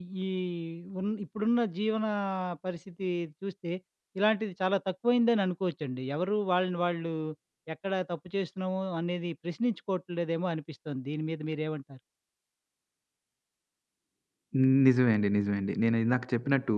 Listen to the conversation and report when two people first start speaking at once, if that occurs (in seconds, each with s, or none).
none